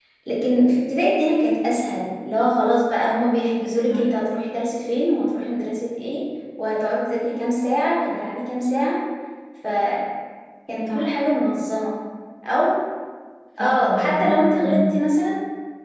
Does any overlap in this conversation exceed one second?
Yes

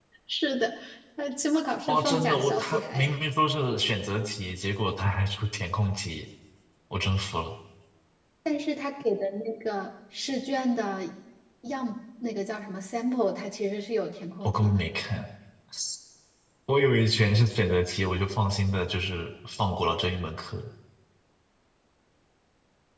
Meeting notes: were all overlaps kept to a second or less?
No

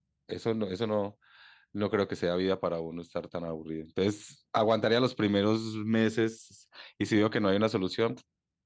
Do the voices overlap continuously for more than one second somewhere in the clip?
No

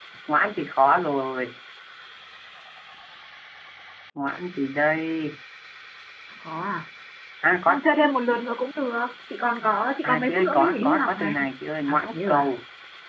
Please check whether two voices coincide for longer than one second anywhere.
Yes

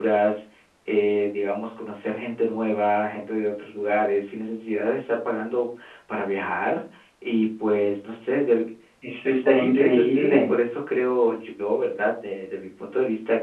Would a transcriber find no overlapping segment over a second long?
No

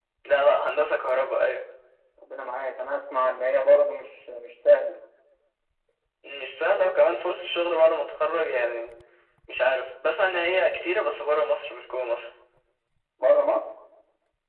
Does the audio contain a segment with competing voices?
No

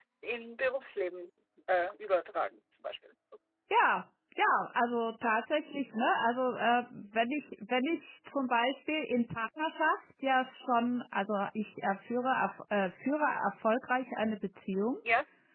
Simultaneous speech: No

